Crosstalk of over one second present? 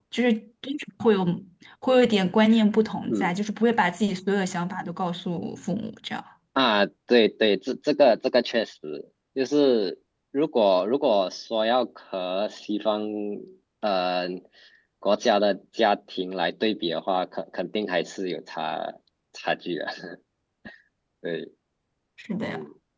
No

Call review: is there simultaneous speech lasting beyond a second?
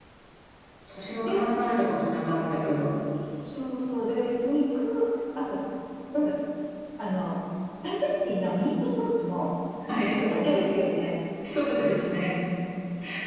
No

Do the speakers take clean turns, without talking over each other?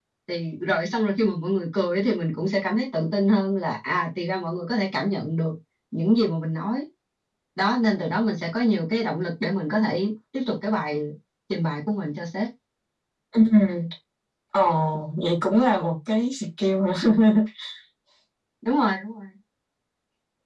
Yes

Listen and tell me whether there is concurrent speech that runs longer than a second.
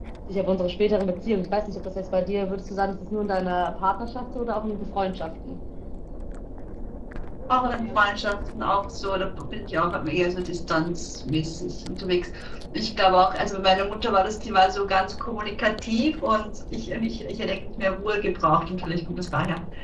No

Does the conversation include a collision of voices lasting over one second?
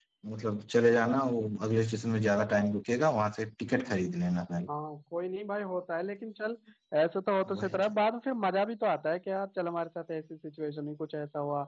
No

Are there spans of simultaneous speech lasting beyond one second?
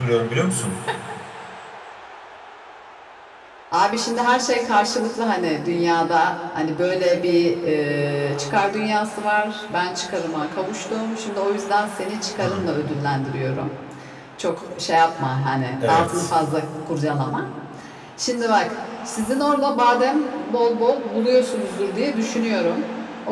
No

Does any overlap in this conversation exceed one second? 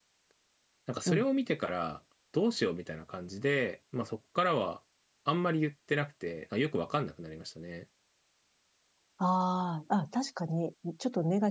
No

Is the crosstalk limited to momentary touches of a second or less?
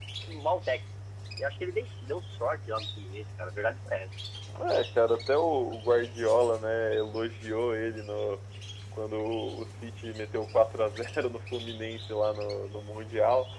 Yes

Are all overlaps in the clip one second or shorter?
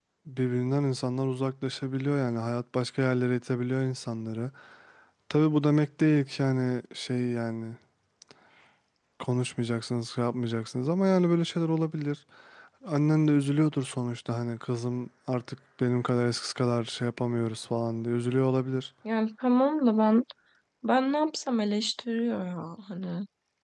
Yes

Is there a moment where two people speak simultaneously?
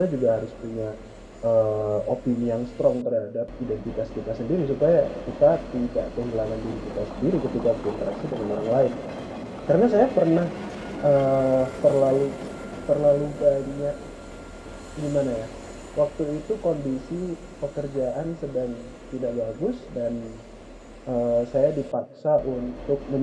No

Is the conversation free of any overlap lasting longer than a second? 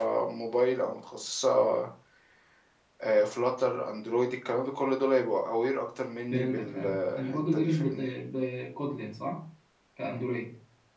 No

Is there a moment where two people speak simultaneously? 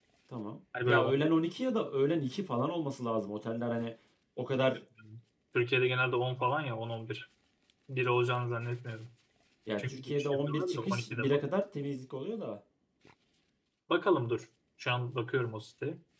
Yes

